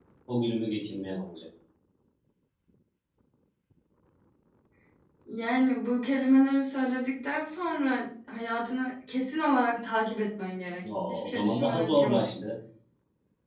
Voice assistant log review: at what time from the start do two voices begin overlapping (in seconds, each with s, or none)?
10.8 s